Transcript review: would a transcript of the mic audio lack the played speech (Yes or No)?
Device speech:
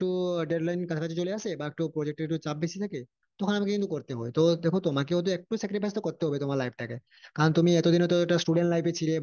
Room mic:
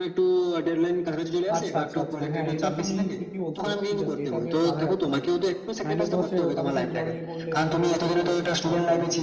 No